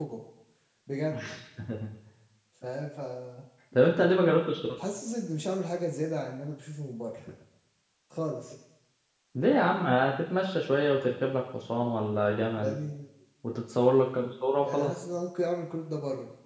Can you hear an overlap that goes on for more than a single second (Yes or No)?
No